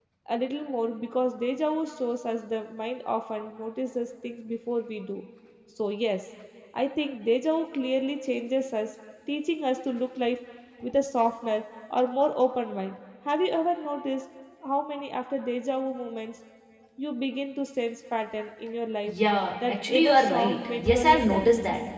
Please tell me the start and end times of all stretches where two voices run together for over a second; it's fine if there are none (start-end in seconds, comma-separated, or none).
19.8-21.5